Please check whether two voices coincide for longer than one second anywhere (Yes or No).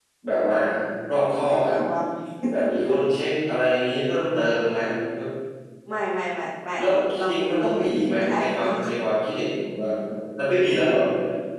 Yes